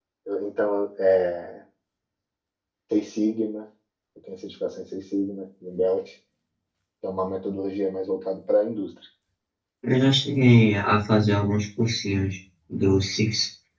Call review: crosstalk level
none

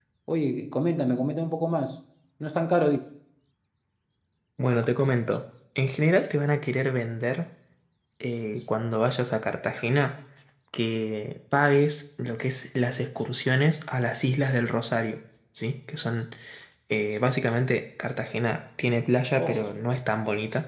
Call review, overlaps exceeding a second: none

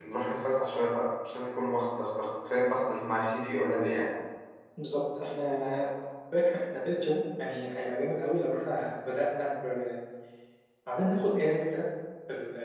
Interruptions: none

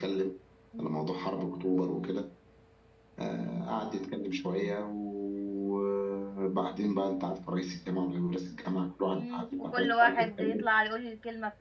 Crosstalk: present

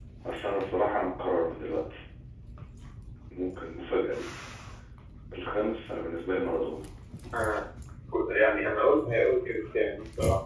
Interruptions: none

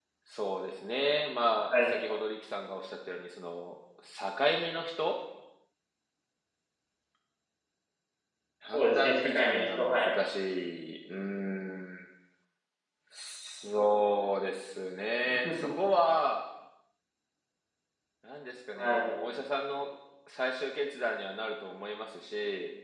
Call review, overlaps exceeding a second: present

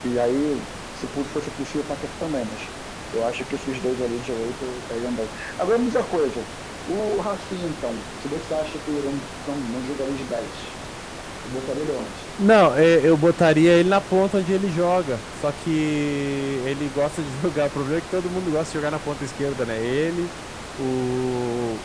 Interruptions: none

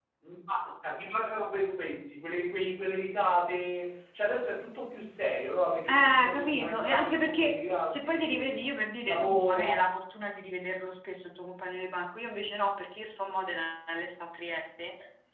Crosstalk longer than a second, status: present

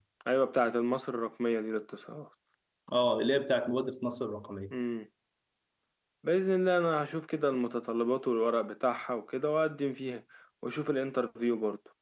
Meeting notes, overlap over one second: none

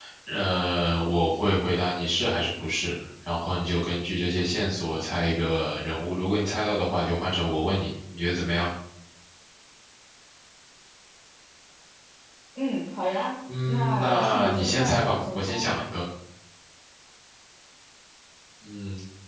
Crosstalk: present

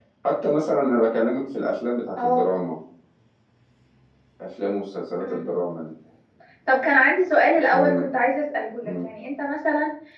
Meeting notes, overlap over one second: none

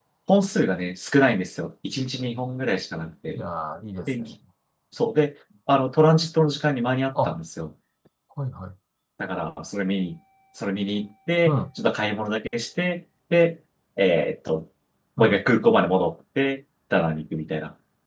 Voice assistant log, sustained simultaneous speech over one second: none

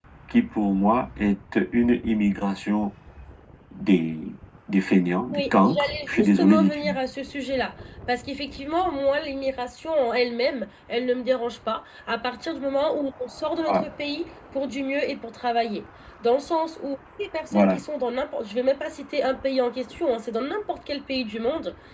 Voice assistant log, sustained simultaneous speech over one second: present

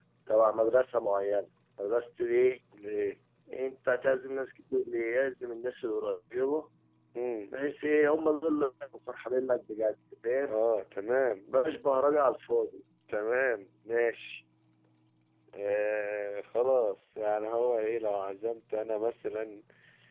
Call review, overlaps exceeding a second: none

